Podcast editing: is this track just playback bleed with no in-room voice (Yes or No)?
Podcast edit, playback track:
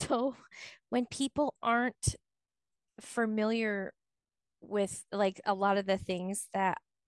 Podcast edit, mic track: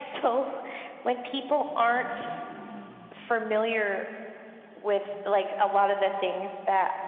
Yes